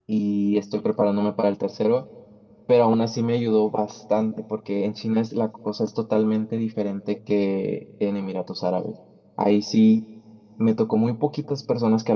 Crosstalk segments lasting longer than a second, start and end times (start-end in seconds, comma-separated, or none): none